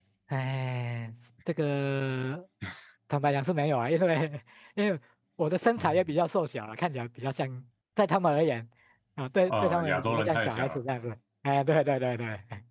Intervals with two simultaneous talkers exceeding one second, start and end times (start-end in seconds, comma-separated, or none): 9.5-10.8